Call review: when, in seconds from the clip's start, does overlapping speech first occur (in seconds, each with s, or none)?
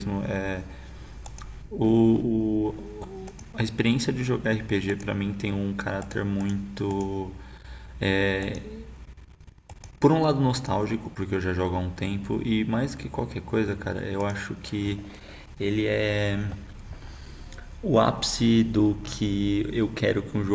none